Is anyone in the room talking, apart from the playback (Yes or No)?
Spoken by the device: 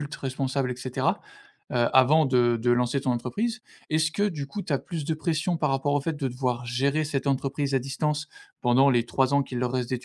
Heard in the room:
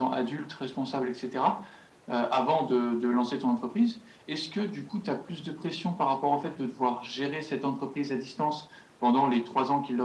No